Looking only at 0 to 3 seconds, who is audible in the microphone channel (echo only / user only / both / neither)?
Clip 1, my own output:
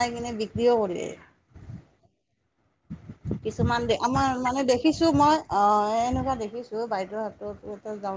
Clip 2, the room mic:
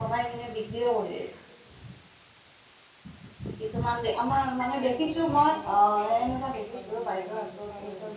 echo only